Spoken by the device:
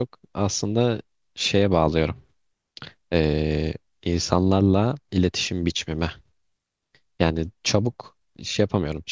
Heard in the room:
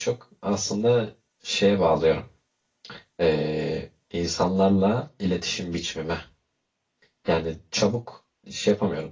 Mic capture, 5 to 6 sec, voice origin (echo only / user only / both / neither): echo only